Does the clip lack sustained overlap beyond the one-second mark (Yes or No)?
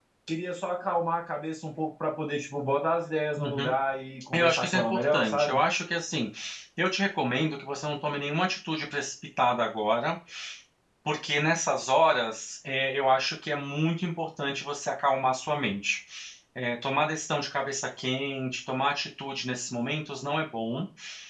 No